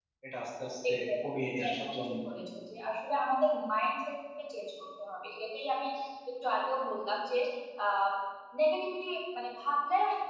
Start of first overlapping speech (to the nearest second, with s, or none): 1 s